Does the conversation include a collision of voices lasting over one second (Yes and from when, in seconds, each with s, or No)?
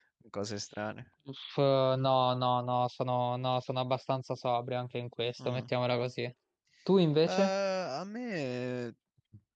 No